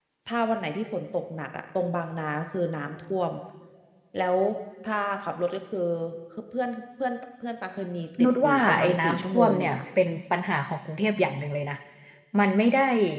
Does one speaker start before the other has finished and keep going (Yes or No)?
Yes